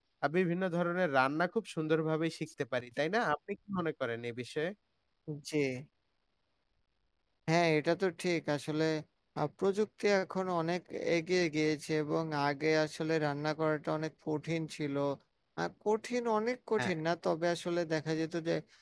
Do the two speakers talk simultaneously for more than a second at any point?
No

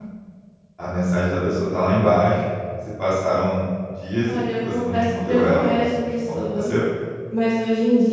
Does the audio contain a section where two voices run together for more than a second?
Yes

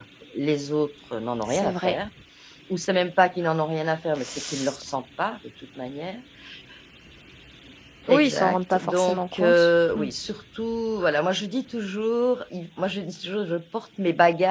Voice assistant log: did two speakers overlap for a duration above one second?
Yes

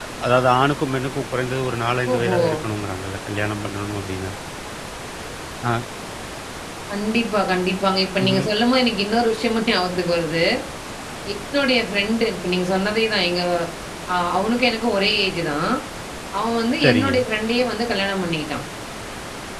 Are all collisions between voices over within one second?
Yes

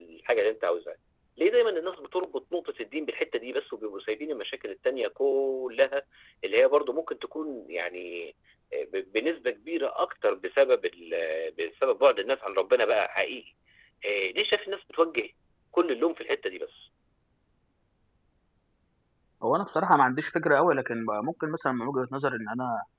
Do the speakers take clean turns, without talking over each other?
Yes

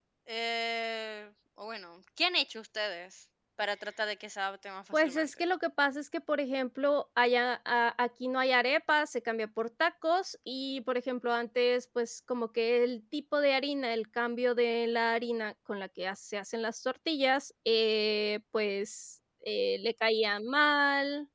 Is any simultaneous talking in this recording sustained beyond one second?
No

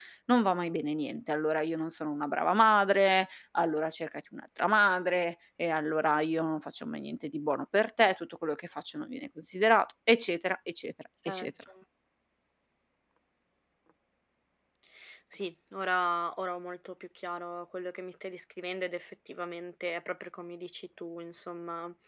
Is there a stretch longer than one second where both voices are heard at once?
No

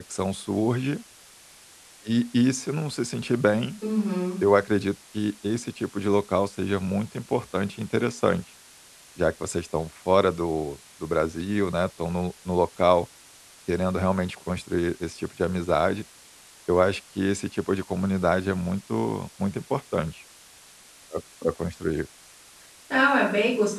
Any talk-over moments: No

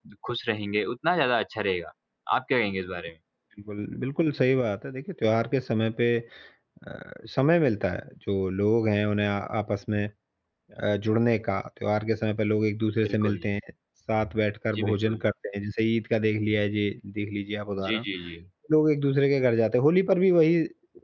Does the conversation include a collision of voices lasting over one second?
No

